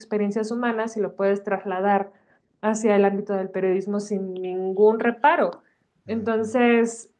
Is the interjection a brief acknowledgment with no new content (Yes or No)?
Yes